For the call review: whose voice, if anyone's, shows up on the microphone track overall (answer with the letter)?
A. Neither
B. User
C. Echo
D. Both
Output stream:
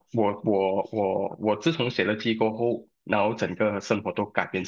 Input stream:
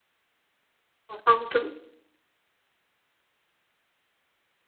B